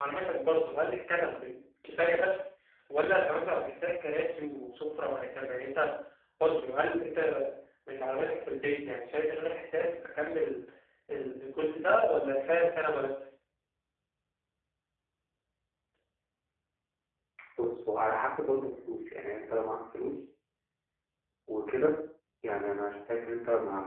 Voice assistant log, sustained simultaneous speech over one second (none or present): none